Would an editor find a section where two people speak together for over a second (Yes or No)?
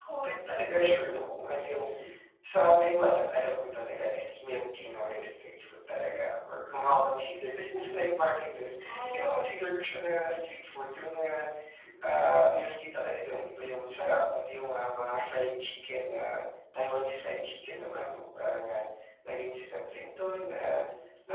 No